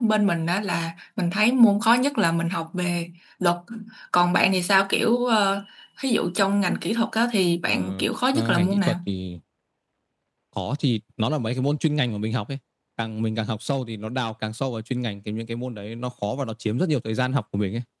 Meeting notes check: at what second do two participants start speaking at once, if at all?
7.7 s

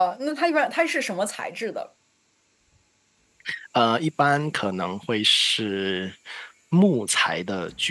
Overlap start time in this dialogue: none

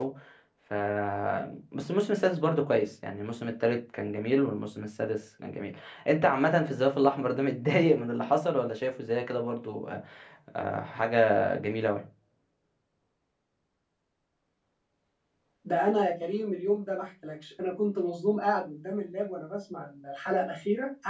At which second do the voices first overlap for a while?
none

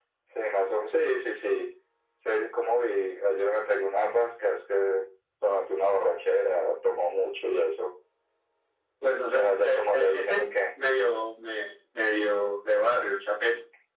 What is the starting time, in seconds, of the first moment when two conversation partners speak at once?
9.3 s

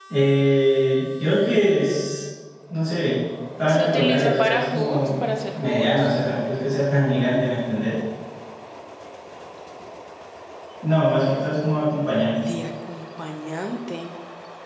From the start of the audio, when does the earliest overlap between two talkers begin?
3.7 s

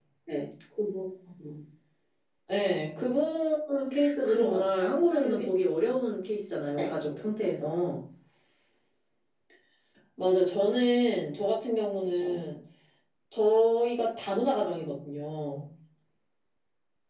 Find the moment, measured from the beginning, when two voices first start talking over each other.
4.2 s

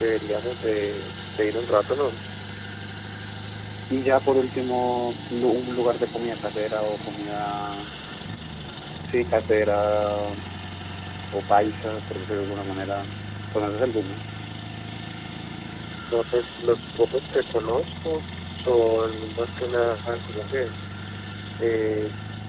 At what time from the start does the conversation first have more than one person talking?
none

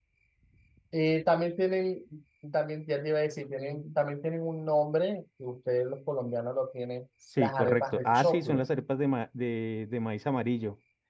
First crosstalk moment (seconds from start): 7.4 s

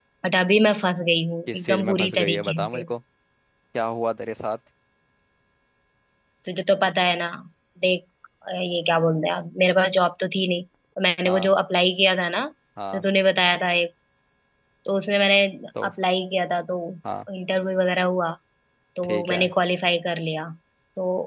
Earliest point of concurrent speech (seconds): 1.5 s

